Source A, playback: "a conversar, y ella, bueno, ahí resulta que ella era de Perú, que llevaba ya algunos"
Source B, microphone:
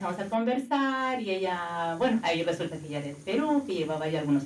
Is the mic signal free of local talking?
No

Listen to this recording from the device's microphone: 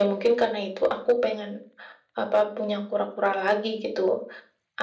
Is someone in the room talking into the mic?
No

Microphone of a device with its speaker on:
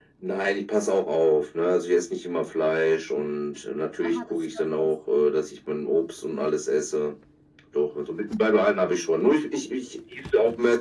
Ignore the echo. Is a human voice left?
Yes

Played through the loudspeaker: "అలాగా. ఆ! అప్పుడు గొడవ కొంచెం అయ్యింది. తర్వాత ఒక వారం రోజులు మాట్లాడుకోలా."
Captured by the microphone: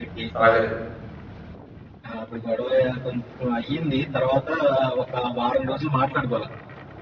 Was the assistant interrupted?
Yes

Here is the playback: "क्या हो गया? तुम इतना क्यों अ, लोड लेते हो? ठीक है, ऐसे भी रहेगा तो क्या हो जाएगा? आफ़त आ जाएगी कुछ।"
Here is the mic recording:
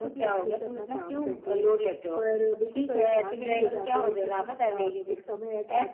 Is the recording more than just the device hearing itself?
Yes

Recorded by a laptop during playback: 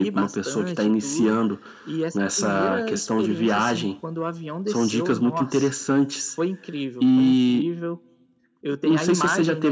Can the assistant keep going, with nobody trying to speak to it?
Yes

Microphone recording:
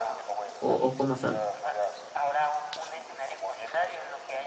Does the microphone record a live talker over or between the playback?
Yes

